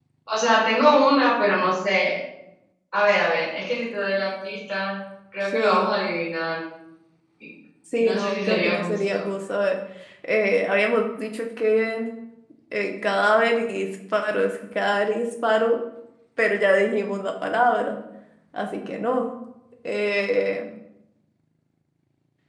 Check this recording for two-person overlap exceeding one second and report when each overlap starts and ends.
8.0-9.2

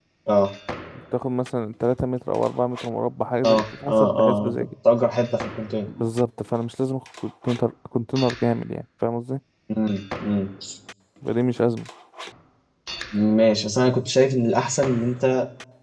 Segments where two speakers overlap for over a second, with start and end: 3.4-4.7

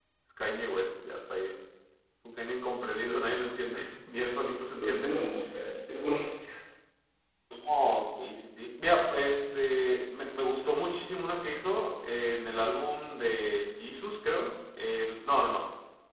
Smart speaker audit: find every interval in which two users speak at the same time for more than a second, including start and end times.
none

